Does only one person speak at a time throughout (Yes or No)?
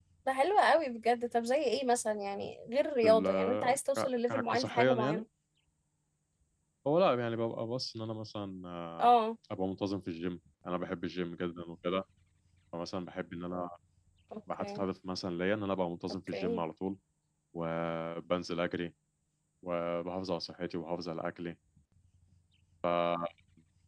No